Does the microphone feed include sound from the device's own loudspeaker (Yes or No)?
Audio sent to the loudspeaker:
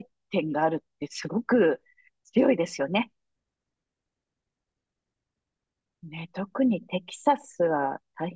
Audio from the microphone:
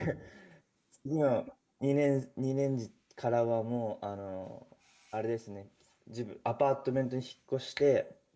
No